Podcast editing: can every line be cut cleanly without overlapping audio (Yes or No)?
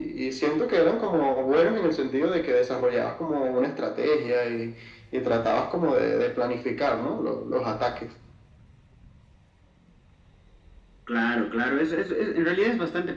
Yes